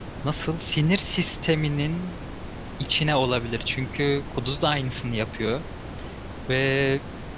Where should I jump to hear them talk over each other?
none

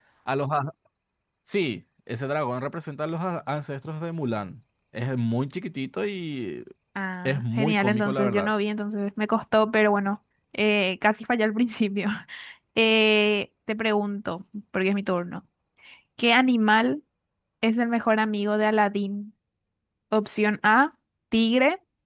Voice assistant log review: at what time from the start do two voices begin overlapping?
7.2 s

